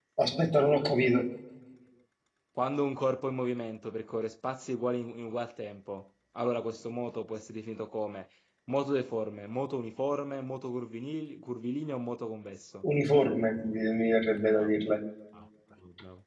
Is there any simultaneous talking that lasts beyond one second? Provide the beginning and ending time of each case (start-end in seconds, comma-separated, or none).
none